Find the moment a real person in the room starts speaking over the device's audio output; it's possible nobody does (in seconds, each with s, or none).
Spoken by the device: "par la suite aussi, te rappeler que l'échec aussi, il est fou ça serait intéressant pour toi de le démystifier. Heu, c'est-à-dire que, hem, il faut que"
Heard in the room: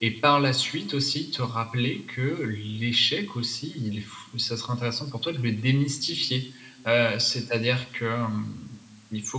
none